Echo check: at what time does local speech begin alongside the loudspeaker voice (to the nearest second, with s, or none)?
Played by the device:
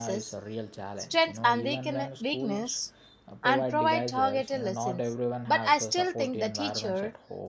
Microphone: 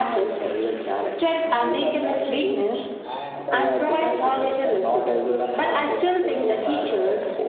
2 s